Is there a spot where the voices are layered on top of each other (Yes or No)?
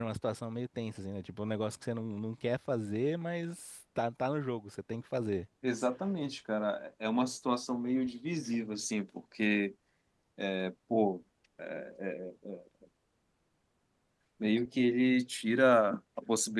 No